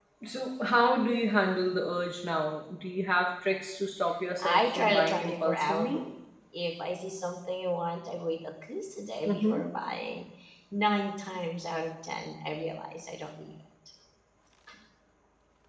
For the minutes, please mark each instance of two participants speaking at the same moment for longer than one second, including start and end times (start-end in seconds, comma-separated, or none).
4.4-6.0